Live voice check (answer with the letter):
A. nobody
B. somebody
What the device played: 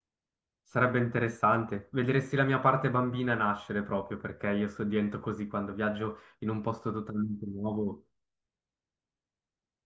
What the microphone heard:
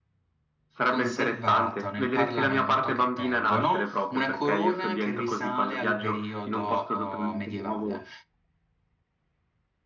B